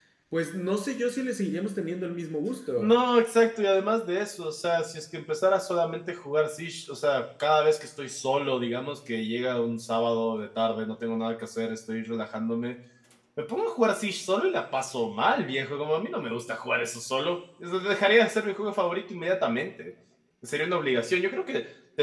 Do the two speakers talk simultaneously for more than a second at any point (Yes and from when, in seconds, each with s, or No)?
No